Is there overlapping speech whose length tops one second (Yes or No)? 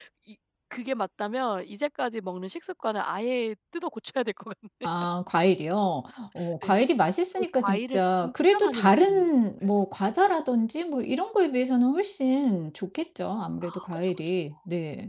Yes